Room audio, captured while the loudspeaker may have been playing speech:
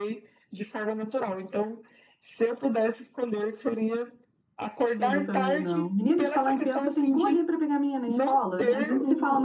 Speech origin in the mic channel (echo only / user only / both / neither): both